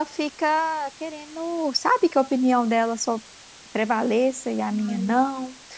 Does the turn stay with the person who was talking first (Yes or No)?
Yes